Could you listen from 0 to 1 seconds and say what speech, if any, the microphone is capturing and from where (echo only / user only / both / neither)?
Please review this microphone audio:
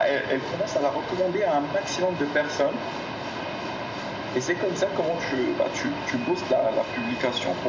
echo only